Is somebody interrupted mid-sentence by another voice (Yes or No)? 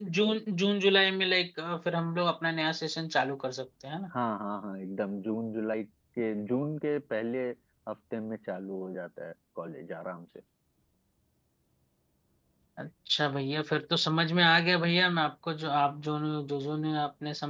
No